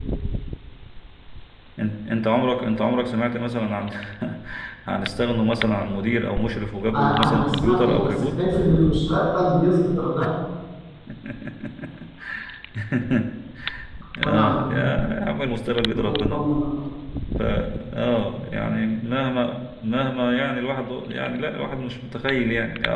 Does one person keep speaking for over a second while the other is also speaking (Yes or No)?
Yes